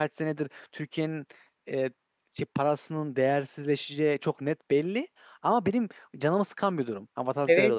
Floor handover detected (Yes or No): Yes